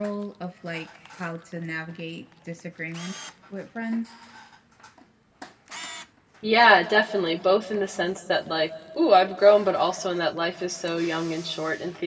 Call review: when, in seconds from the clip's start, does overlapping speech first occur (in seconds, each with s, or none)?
none